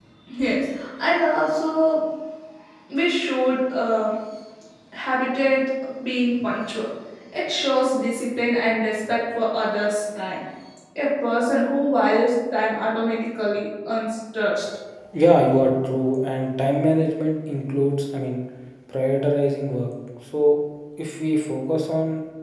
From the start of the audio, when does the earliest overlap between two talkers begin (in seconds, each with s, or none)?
none